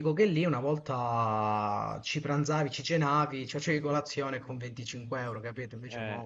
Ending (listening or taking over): taking over